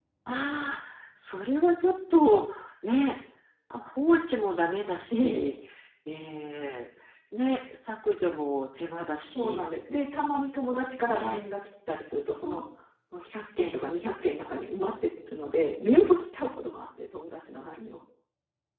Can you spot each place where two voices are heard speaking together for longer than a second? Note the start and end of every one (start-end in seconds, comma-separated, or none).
none